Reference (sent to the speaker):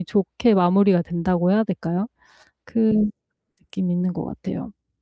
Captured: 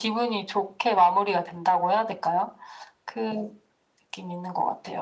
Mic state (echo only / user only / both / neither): echo only